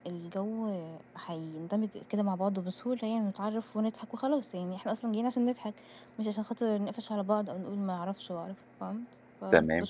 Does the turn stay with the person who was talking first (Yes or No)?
No